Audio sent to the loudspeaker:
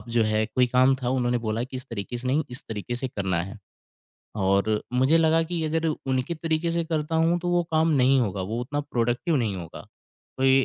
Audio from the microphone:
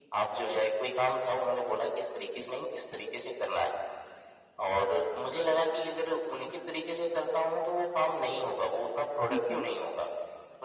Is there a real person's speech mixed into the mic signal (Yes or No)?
Yes